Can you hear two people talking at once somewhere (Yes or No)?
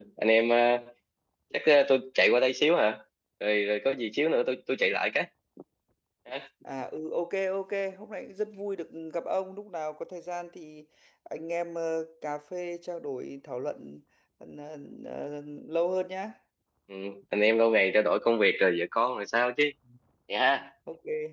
No